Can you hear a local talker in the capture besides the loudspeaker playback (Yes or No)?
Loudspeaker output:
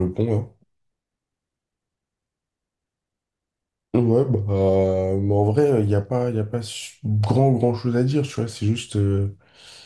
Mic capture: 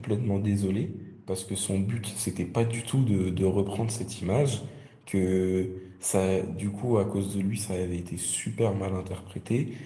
Yes